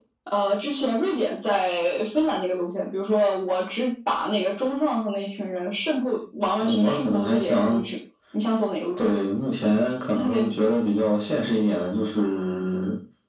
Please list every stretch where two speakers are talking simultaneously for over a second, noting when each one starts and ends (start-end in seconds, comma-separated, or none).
6.6-7.9